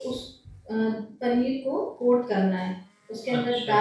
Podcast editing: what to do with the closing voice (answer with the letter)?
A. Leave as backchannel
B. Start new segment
A